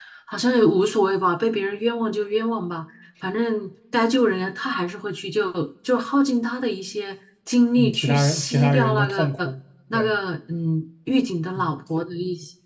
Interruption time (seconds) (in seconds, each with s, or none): 7.8 s